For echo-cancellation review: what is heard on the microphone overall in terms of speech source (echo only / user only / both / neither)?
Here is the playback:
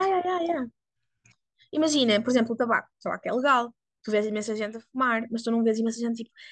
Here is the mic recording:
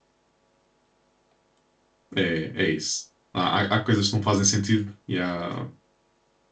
user only